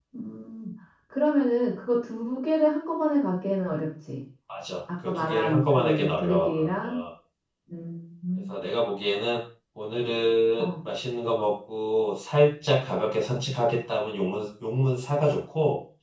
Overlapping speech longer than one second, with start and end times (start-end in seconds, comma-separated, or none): 5.0-7.0